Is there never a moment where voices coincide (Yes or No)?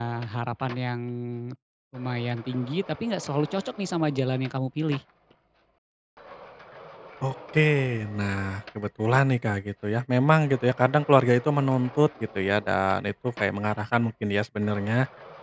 Yes